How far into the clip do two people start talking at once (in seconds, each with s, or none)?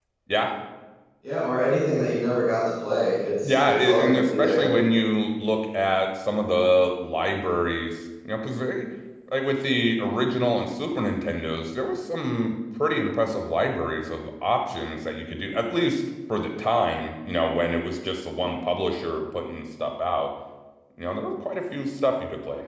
3.4 s